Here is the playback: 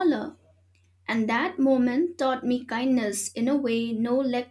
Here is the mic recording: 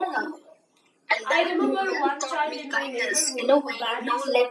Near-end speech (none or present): present